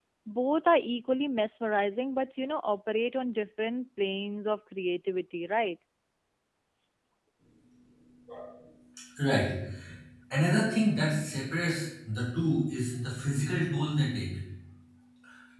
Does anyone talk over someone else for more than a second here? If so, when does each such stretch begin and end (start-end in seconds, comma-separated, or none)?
none